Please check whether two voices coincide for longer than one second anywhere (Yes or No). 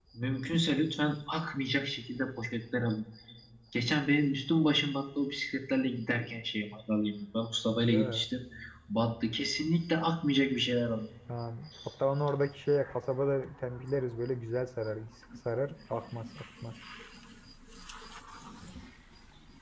No